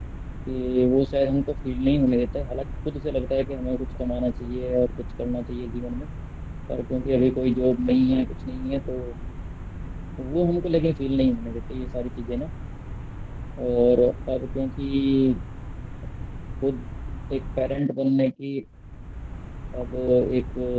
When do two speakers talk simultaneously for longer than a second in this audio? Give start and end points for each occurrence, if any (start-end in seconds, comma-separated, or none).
none